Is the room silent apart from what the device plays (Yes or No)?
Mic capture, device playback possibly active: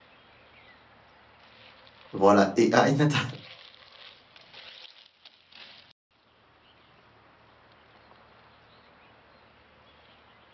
No